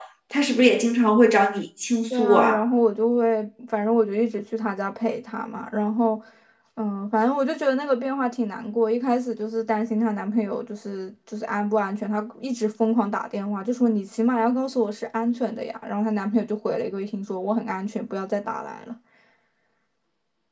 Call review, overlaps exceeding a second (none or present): none